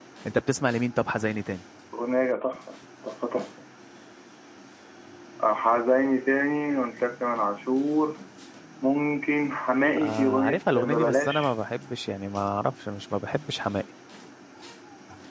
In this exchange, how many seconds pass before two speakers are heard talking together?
9.9 s

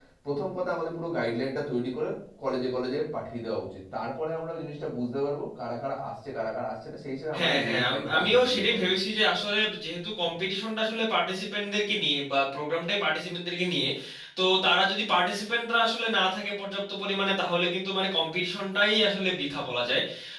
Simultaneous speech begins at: 7.3 s

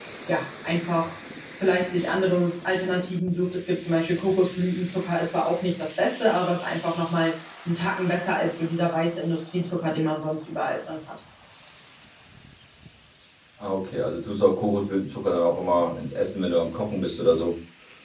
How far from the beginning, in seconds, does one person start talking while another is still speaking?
none

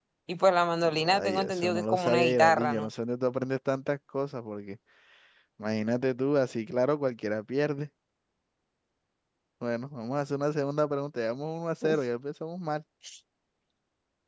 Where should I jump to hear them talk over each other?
1.1 s

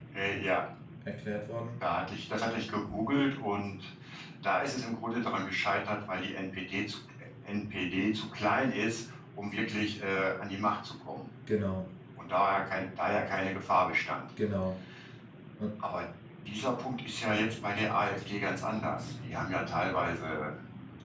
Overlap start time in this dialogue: none

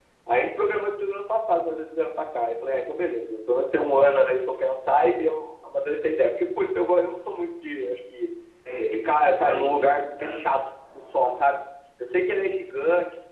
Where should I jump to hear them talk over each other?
8.9 s

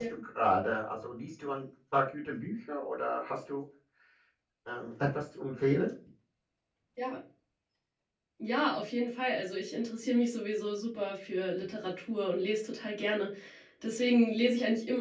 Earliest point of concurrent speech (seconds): none

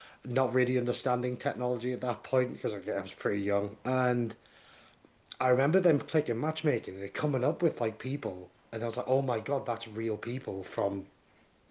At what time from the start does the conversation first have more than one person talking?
none

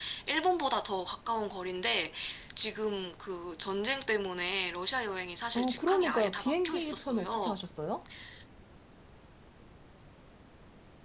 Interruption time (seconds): 5.6 s

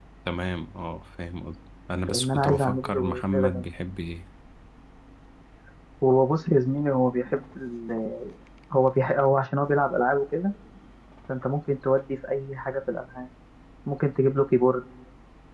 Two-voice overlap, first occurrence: 2.1 s

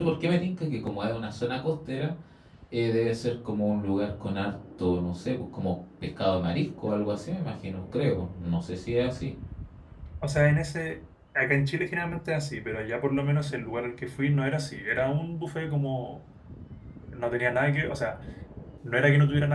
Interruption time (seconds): none

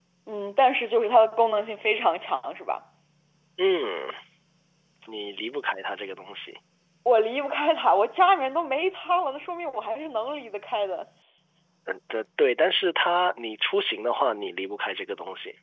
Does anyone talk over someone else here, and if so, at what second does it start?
none

